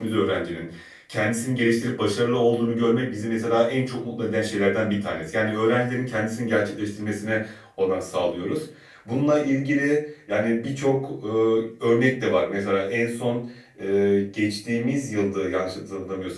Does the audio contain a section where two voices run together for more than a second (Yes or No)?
No